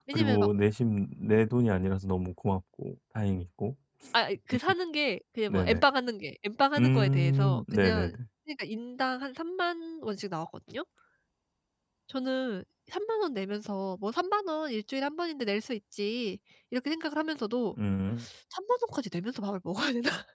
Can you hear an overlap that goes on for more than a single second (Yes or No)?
Yes